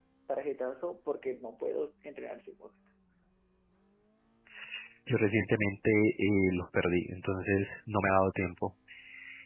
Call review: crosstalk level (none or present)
none